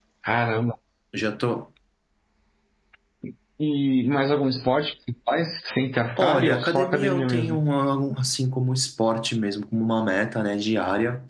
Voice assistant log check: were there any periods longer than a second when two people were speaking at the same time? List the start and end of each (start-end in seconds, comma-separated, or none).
6.2-7.6